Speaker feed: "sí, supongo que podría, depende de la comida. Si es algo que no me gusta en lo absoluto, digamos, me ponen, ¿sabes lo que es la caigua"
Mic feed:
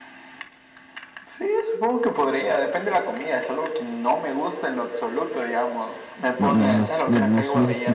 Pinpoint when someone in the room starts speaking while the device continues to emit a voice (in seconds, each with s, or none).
6.4 s